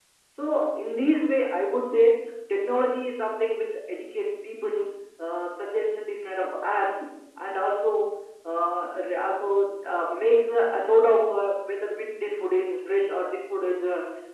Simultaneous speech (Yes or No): No